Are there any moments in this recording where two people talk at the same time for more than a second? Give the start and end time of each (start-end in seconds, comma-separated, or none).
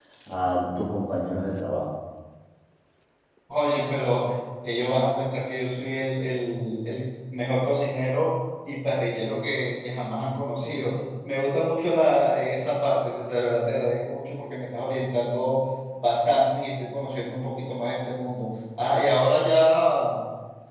none